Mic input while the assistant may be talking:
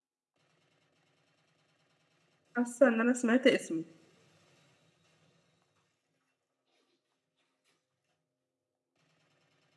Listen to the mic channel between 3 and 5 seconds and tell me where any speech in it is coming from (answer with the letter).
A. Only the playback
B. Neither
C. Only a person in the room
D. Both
C